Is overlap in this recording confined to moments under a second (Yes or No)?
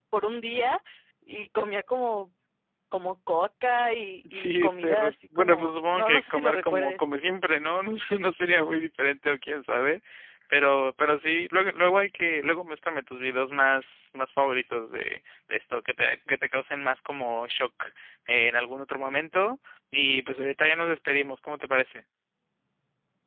No